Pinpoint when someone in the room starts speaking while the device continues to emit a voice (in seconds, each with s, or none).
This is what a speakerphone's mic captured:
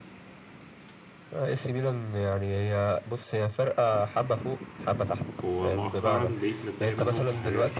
5.4 s